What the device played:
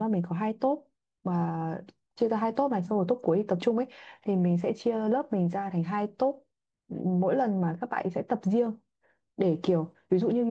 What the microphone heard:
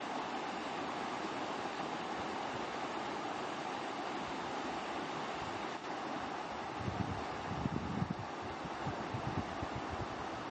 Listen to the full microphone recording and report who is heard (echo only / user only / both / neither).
neither